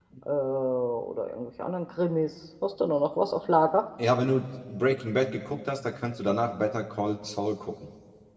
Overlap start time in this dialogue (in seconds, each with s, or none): none